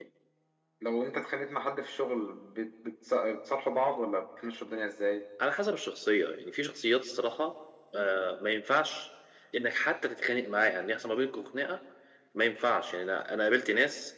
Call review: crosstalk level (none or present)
none